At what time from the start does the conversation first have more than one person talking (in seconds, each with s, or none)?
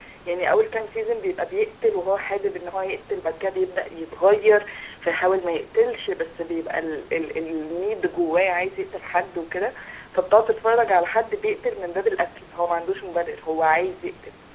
none